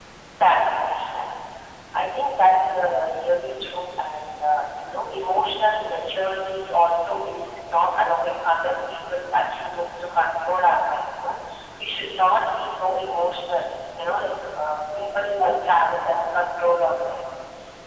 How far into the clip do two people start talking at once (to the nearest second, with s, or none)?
none